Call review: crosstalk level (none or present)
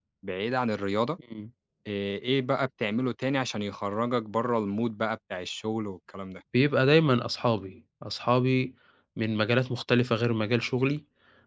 none